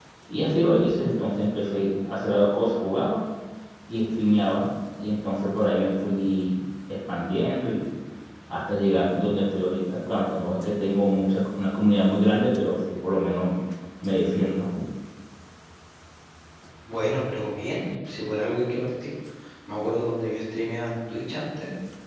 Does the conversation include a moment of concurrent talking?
No

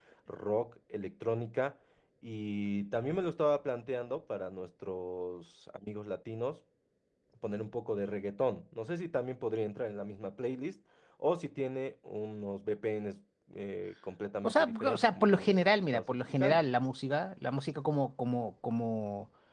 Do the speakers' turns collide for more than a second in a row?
Yes, from 14.4 s

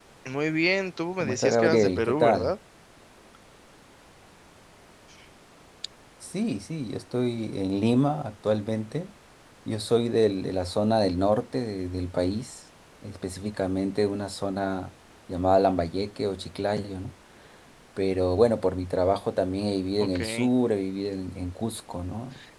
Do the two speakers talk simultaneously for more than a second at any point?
Yes, from 1.2 s

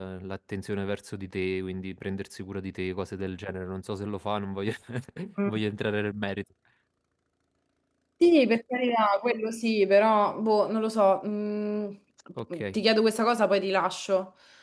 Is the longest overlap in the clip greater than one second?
No

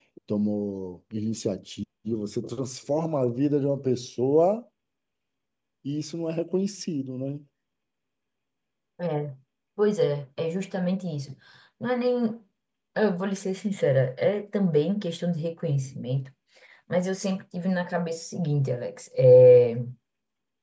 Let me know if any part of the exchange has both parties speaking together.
No

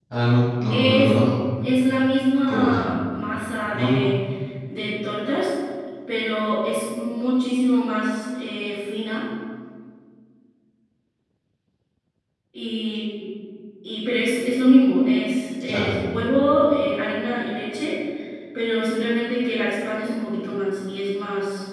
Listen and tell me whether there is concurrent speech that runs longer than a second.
No

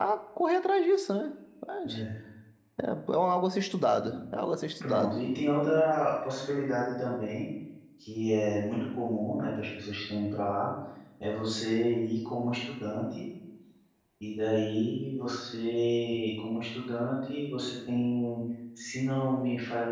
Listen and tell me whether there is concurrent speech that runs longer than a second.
No

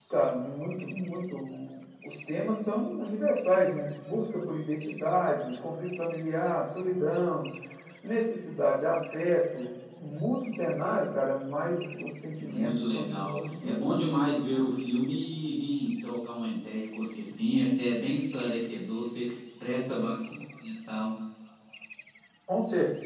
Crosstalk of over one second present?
Yes, from 12.4 s

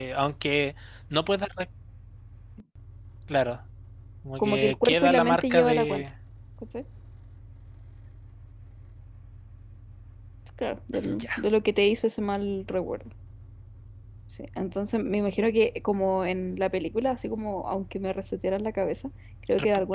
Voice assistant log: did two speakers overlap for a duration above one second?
Yes, from 4.4 s

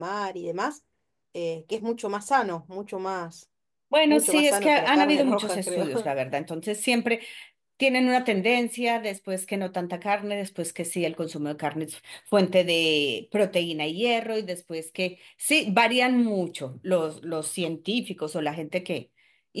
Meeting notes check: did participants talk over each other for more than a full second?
Yes, from 4.1 s

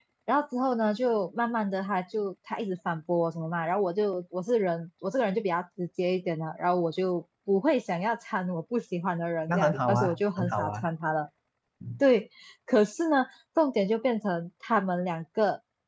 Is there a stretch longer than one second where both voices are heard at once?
Yes, from 9.5 s

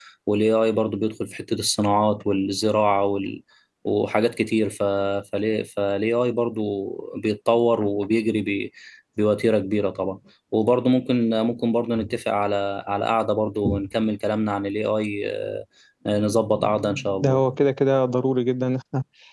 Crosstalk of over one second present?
No

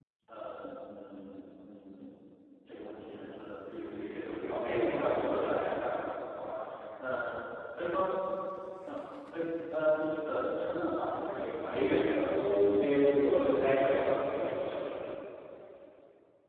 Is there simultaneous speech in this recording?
Yes, from 4.1 s

